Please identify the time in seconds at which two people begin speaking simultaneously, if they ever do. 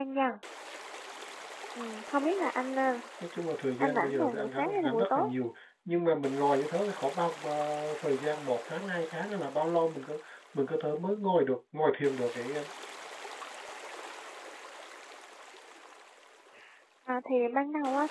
3.8 s

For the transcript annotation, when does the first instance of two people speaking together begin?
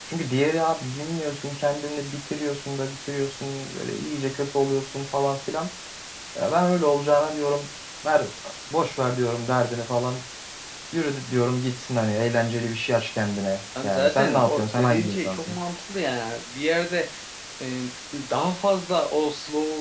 13.8 s

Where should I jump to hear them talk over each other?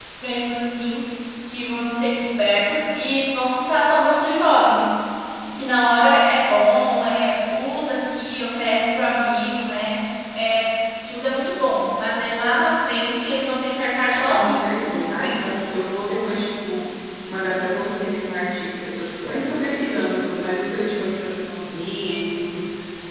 14.3 s

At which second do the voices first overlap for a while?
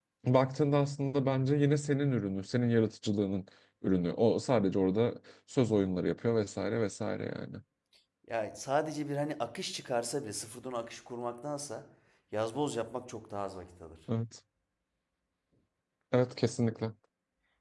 none

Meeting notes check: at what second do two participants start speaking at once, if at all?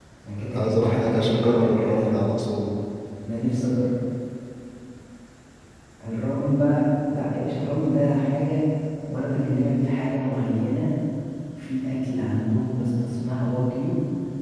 0.5 s

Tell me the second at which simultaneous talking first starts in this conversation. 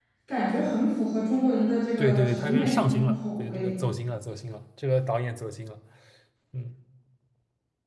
2.0 s

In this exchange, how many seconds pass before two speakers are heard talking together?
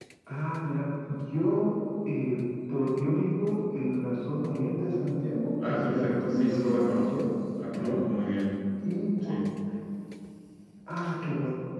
5.6 s

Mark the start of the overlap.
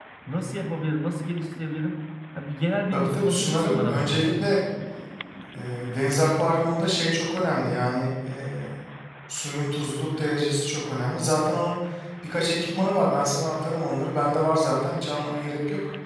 2.9 s

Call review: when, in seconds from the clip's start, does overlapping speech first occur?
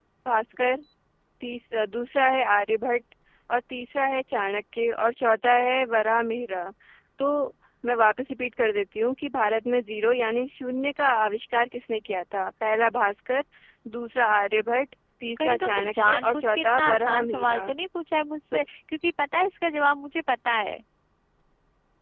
15.4 s

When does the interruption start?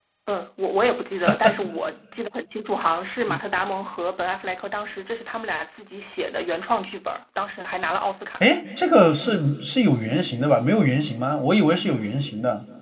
none

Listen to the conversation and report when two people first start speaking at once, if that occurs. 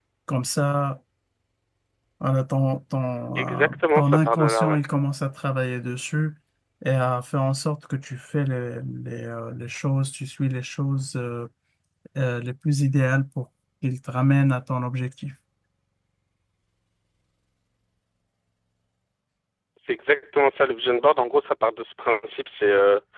3.4 s

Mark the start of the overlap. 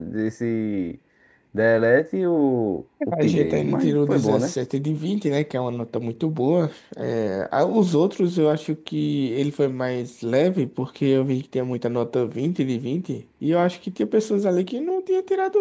3.0 s

